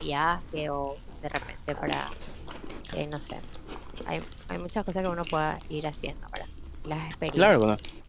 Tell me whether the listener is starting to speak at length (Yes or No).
Yes